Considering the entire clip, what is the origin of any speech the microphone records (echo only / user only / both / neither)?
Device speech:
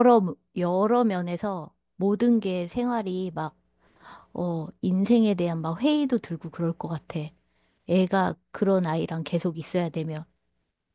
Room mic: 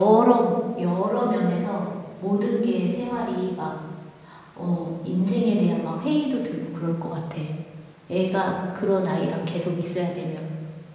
echo only